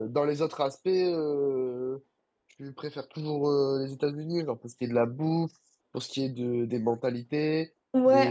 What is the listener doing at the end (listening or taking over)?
taking over